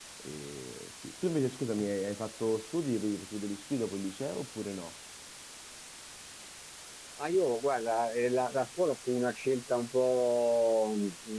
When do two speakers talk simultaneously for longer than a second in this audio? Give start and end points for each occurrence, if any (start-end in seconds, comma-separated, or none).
none